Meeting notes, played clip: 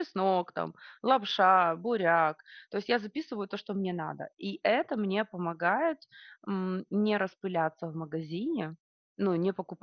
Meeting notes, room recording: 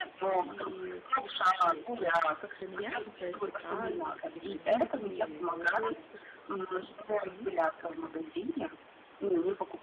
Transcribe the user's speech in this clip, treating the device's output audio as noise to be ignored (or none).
и, м, скорее всего, как это меняется, если праздник или каникулы, или отпуск? Ваше питание меняется как-то?